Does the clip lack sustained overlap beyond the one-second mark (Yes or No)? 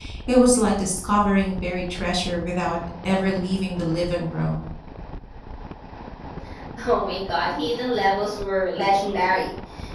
Yes